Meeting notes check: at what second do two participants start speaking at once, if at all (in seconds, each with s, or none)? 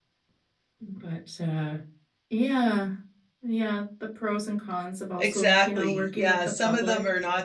5.2 s